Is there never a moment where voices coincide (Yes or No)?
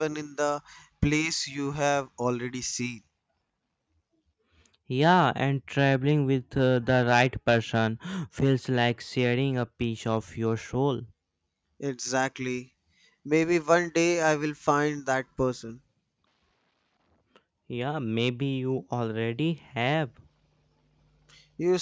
Yes